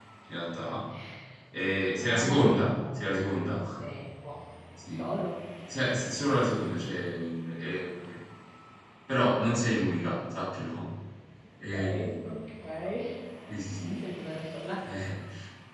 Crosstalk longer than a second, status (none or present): present